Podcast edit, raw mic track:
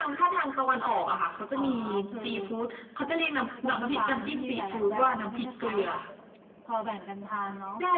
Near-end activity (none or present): none